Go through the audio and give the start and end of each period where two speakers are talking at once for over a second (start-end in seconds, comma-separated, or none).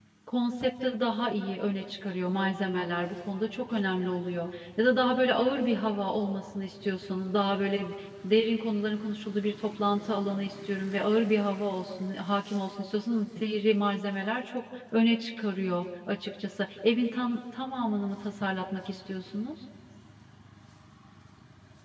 none